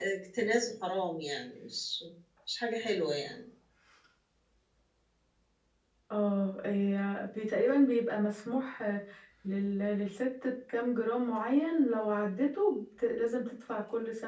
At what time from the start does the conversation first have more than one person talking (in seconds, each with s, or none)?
none